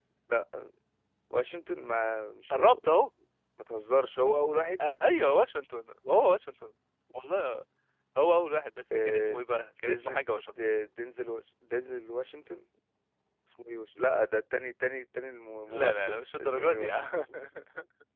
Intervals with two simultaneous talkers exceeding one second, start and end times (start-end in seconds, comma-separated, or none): 15.7-17.1